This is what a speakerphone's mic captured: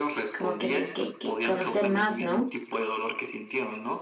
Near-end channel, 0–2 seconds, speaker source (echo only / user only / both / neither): both